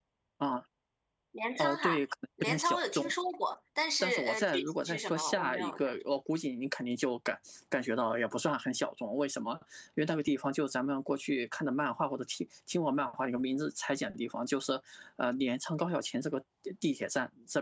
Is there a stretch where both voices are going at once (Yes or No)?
Yes